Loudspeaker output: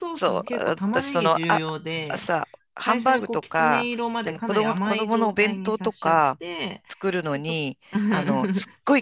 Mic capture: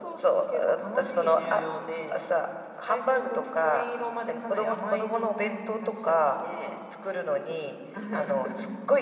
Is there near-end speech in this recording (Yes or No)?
No